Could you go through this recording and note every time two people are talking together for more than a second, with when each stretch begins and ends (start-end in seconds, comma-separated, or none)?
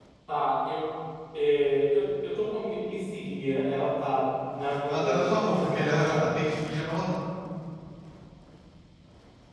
4.9-6.5